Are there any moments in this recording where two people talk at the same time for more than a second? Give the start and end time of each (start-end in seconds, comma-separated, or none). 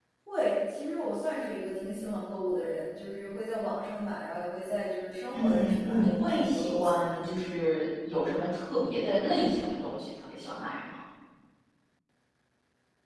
5.3-7.1